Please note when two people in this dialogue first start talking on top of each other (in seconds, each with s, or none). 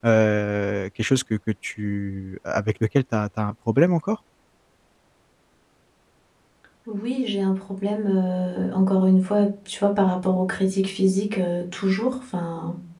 none